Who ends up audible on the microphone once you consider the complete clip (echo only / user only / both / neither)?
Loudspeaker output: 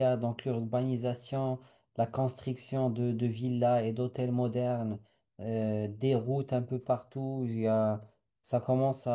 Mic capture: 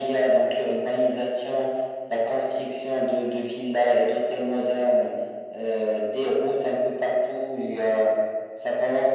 echo only